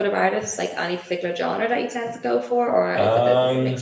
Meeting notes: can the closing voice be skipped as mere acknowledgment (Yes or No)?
No